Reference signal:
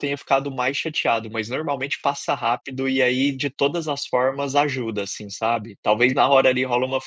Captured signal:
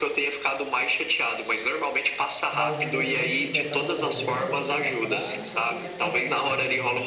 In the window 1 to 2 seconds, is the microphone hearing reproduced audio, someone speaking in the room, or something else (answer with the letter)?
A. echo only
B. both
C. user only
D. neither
A